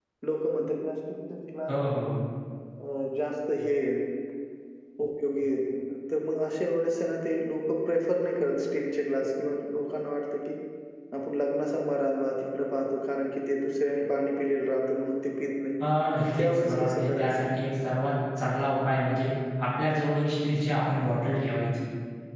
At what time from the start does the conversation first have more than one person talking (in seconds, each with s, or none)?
16.2 s